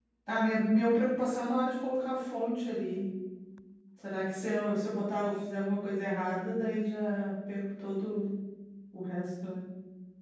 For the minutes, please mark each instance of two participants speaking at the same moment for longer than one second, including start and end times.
none

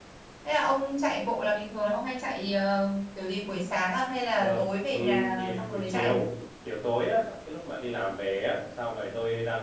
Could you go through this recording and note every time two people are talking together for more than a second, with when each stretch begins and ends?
4.9-6.1

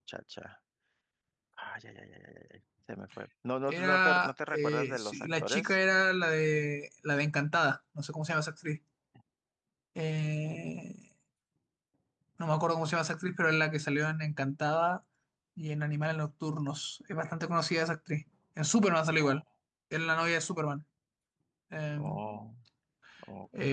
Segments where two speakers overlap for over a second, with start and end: 3.7-5.8

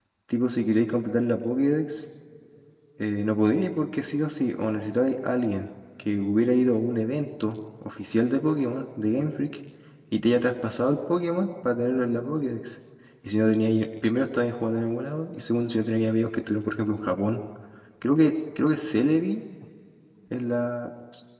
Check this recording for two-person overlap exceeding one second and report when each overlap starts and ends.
none

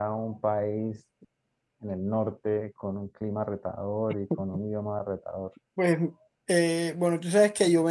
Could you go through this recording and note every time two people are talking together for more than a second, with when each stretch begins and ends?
none

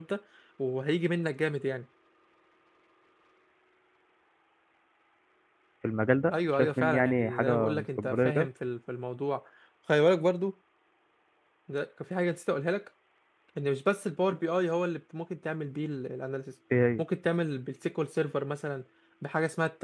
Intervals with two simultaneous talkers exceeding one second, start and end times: 6.3-8.5

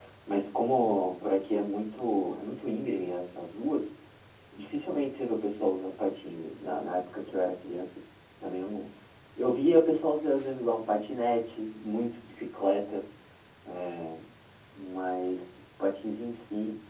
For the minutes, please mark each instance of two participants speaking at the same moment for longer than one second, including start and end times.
none

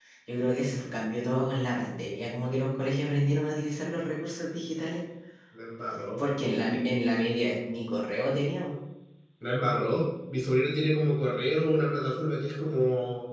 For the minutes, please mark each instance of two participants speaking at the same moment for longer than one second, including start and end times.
none

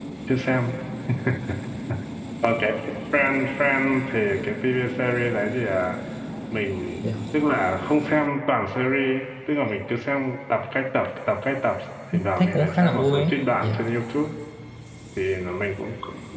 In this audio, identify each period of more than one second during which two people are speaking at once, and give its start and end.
12.4-13.7

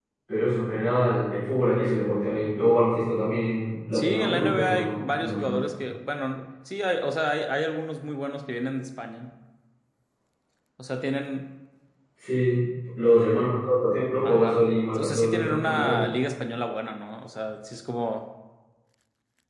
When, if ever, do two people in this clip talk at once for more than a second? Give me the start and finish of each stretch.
3.9-5.7, 14.2-16.0

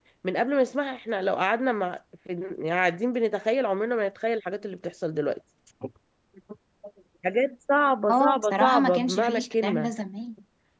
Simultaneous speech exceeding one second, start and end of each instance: 8.1-9.8

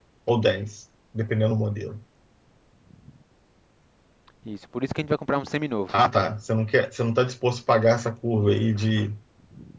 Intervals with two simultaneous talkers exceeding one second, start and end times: none

